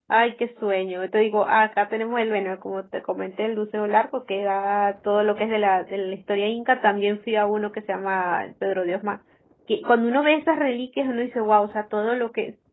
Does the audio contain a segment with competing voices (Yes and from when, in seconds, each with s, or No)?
No